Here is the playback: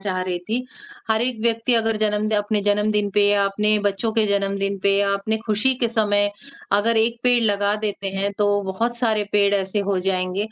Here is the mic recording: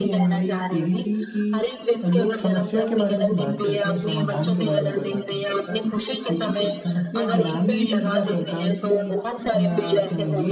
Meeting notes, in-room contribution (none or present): present